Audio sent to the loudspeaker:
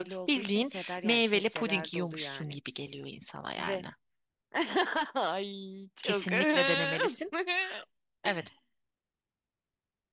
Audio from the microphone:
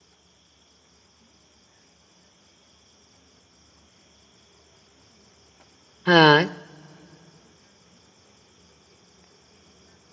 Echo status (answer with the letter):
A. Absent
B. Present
A